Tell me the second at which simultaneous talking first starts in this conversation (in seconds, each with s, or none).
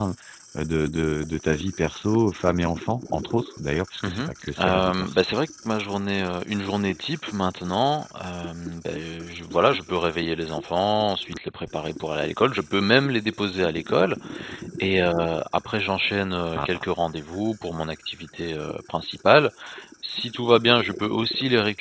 4.0 s